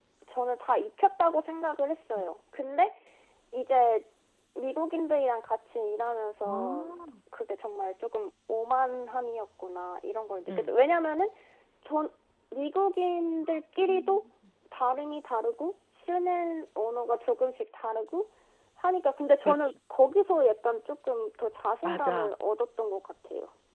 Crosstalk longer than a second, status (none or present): none